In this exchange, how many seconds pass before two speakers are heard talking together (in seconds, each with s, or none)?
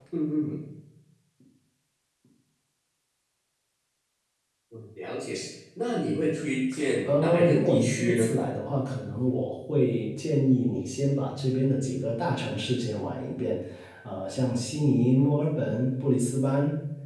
7.1 s